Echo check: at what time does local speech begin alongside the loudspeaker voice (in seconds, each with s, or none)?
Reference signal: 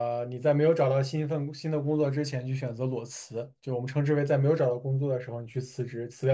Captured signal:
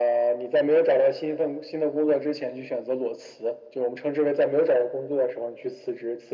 none